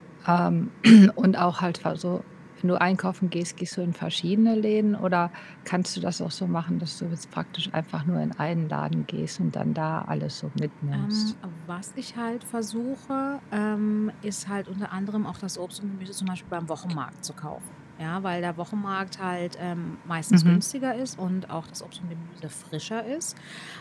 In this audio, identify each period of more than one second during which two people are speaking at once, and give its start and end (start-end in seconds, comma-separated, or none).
none